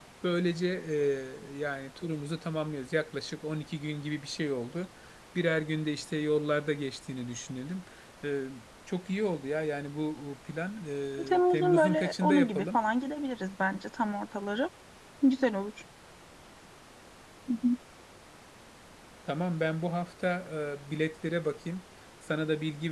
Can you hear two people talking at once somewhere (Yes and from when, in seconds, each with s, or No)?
Yes, from 11.1 s